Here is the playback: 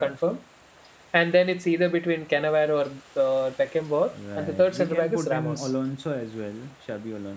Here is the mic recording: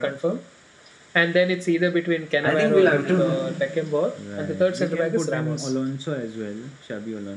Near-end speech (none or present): present